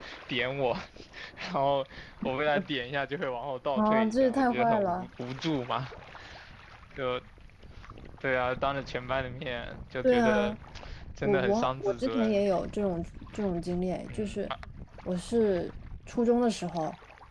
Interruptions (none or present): present